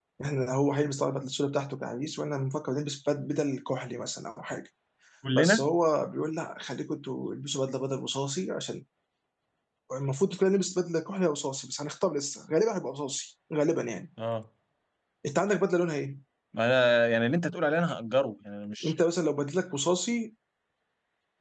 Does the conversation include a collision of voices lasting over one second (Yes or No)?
No